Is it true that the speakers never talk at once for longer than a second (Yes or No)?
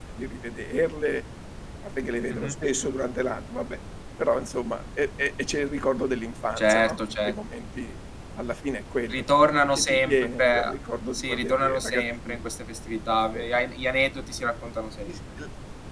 No